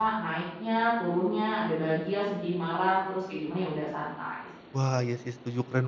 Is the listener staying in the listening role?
No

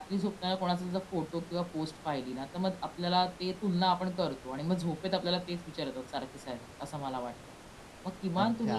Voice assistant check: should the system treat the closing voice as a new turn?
Yes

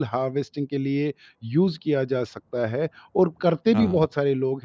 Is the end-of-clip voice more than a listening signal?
No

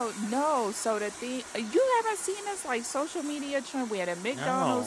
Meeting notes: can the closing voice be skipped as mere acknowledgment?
Yes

